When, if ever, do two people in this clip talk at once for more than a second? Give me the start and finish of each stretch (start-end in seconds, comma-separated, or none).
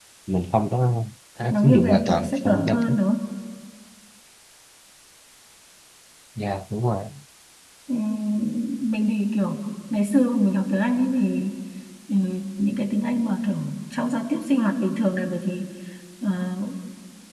1.5-3.0